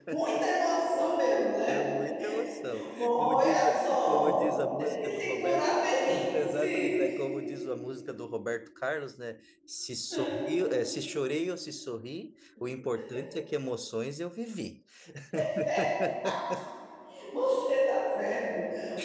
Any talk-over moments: Yes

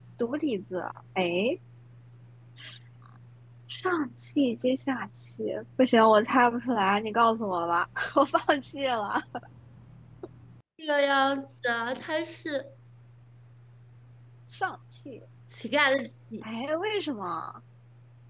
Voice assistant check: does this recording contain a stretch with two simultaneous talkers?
No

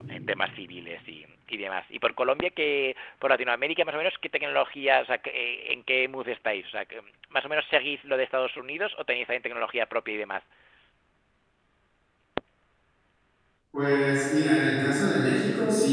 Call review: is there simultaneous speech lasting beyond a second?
No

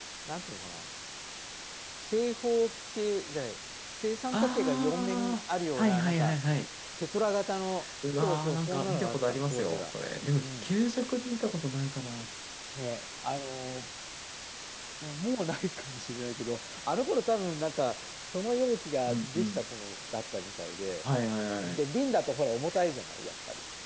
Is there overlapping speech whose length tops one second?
Yes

